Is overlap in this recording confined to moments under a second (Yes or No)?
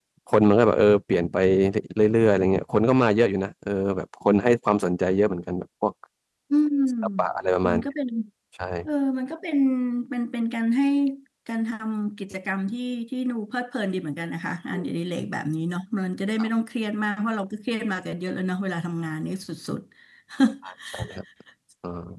Yes